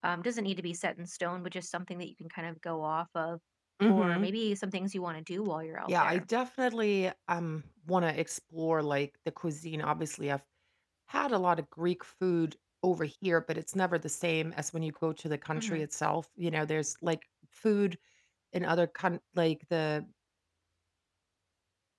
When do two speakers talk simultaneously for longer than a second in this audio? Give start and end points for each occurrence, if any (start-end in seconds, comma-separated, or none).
none